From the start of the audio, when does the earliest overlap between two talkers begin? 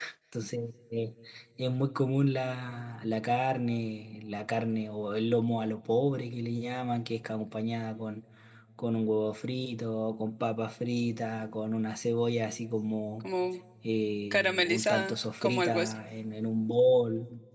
14 s

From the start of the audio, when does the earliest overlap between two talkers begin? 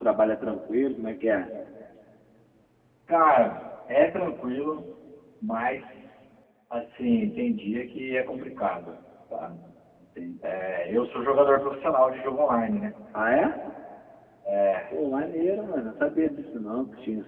none

